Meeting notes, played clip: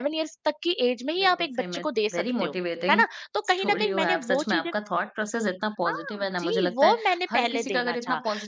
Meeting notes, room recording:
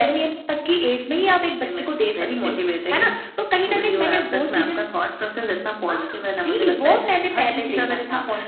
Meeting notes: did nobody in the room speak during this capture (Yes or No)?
Yes